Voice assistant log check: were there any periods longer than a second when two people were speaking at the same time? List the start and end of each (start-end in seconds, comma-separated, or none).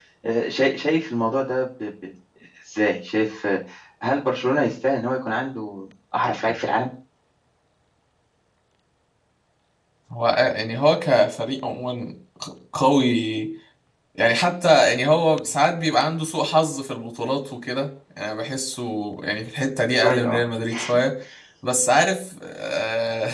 none